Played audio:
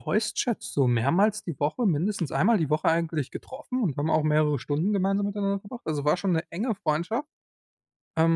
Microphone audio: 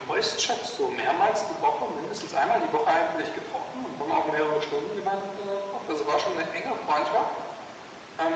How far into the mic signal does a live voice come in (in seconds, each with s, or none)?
none